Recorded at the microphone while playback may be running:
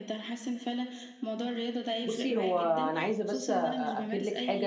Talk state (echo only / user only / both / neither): both